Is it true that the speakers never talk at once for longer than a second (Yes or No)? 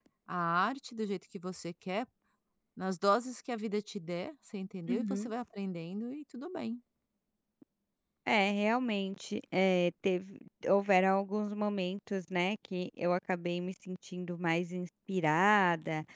Yes